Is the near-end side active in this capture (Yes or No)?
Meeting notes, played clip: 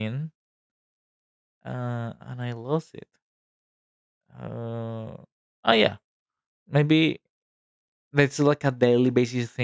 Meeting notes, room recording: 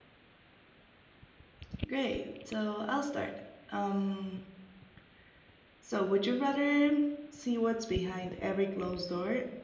Yes